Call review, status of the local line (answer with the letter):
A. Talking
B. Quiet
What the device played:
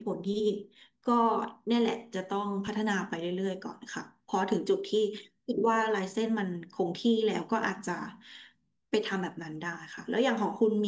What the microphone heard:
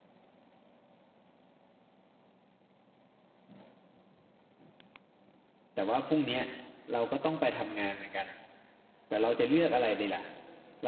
A